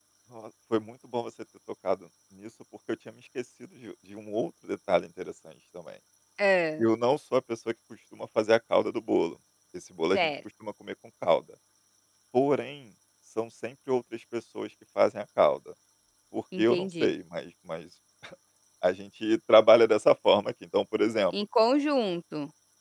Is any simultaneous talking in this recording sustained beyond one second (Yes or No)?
No